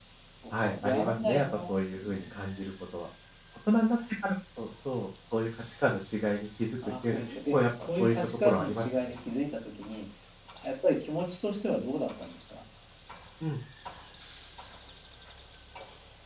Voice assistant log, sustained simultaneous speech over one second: present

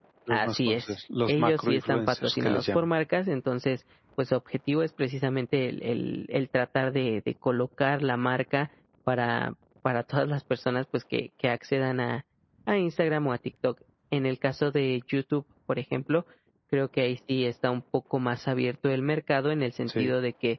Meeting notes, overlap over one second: present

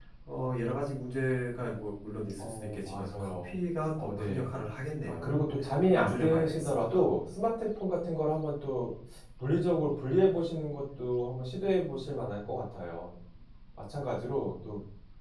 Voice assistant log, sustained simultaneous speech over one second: present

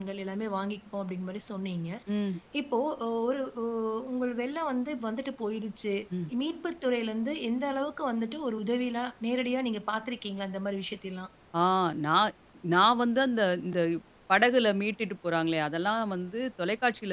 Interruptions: none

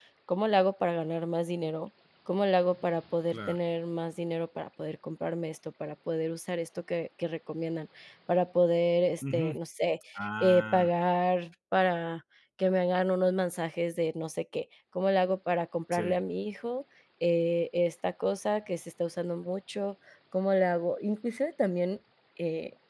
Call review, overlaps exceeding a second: none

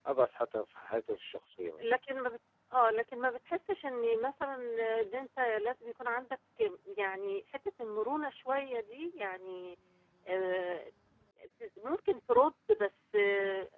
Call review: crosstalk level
none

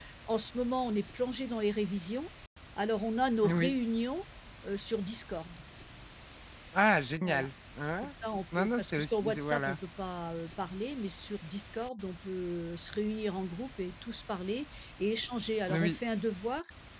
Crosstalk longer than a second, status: present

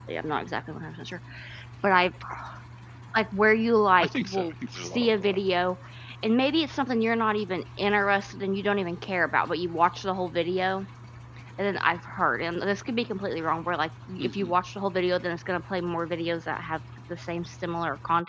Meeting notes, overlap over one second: present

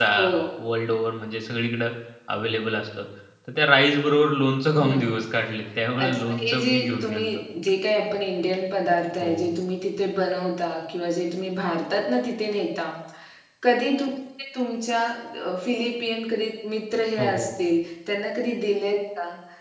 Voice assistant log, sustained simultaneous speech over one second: present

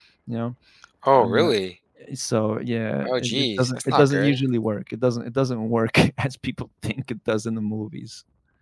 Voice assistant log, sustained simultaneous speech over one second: present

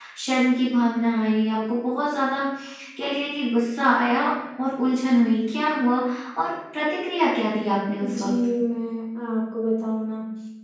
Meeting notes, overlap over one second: none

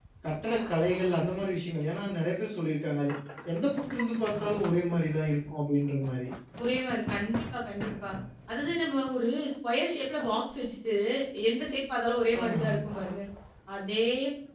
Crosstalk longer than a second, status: none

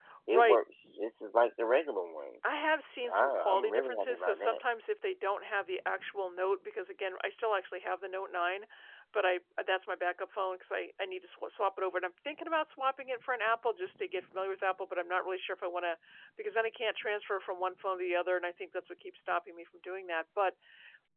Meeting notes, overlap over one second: present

